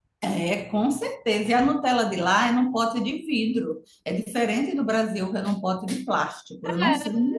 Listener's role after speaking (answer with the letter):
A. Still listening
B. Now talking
B